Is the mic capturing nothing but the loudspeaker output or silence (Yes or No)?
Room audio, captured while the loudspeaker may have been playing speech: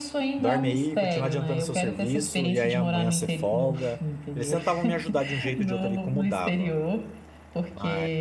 No